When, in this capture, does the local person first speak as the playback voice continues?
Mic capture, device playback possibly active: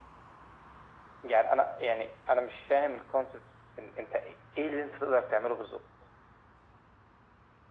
none

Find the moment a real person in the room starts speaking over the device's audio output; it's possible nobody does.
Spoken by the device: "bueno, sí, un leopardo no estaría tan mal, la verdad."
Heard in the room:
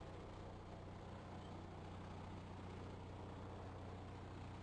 none

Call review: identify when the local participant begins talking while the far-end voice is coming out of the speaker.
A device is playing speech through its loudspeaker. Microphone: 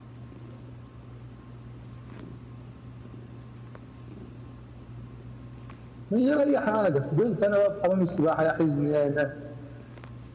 6.1 s

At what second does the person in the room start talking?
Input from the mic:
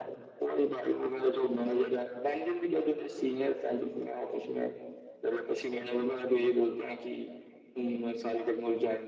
none

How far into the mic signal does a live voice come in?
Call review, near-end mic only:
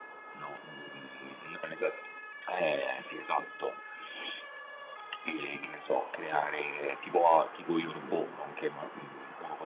none

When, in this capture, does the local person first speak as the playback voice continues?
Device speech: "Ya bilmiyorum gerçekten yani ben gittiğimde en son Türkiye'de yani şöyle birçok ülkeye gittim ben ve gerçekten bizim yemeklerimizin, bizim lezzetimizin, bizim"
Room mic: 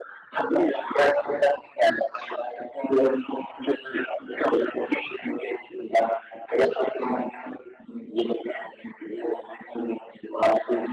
none

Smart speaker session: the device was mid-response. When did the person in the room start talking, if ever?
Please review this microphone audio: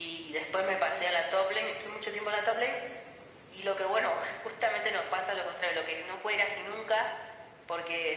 none

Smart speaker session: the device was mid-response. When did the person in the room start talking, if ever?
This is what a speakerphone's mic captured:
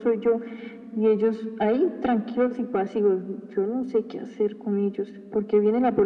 none

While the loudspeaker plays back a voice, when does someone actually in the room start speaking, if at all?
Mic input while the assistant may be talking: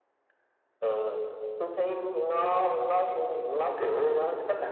none

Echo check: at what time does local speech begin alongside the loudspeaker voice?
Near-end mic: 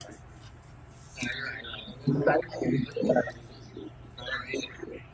none

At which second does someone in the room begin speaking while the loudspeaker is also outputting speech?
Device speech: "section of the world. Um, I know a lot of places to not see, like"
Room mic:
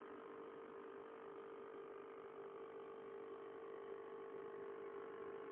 none

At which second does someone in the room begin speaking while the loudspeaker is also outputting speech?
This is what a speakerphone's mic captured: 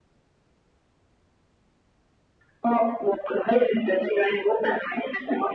none

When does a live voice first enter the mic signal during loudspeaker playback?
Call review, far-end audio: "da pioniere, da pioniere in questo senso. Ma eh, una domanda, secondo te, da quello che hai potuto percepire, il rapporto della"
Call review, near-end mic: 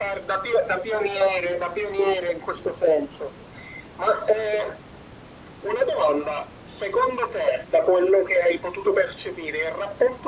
none

